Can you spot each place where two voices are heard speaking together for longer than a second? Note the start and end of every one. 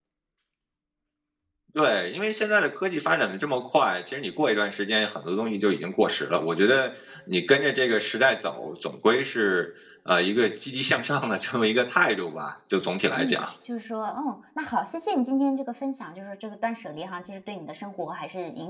none

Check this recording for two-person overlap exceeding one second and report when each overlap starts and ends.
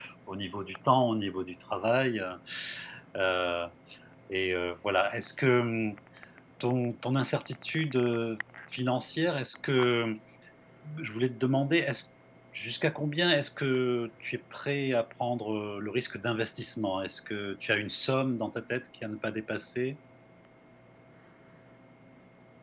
none

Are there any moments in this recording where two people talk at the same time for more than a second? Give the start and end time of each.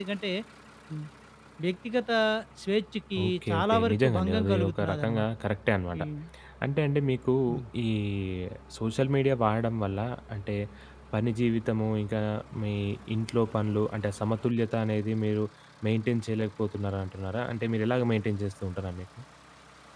3.2-5.3

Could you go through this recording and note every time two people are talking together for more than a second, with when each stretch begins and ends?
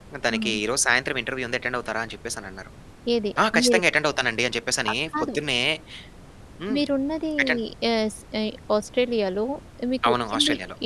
none

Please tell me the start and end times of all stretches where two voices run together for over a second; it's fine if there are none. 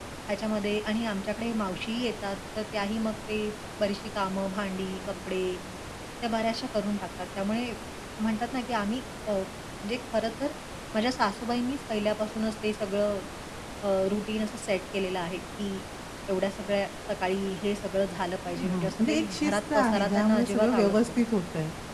18.5-21.1

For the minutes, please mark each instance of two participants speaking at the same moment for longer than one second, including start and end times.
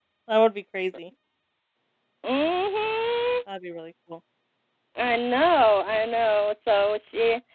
none

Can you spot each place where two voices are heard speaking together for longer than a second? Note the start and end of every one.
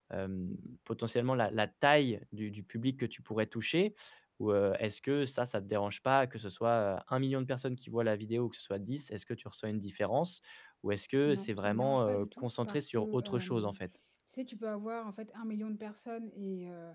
11.3-13.8

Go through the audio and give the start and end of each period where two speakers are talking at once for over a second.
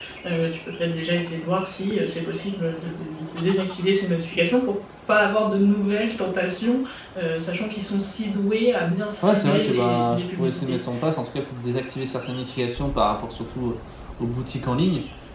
9.2-10.8

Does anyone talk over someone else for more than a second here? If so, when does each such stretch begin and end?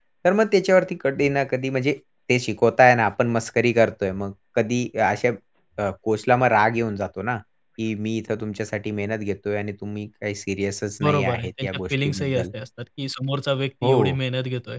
11.0-12.4

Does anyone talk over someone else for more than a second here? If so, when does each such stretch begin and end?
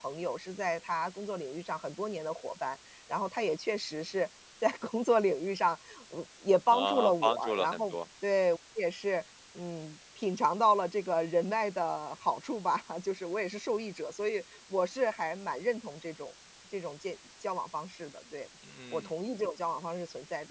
6.7-8.0

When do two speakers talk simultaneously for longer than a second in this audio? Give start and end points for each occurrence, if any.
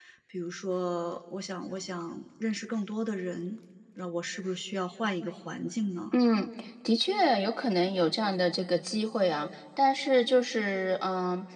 none

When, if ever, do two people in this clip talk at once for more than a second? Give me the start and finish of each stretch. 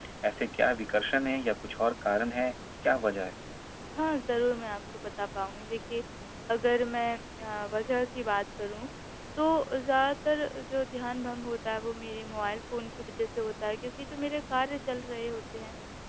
none

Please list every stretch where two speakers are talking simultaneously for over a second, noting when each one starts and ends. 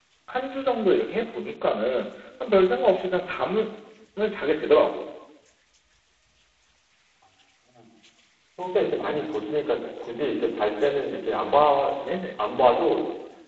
none

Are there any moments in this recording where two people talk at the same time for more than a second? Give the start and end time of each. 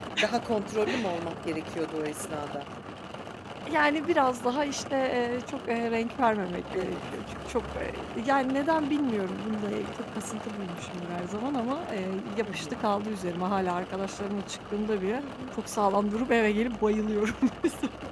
none

